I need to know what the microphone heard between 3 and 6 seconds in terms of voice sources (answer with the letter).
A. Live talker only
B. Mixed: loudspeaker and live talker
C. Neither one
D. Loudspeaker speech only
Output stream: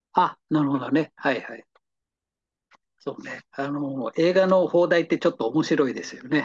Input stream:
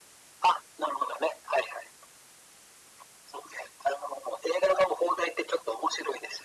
D